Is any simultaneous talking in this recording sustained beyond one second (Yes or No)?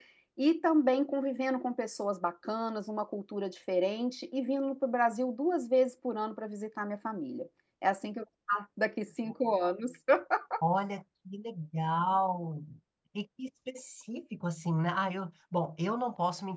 No